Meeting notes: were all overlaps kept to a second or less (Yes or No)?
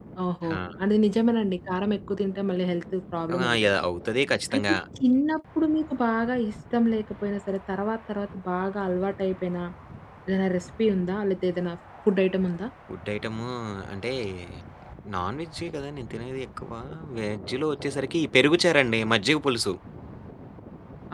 Yes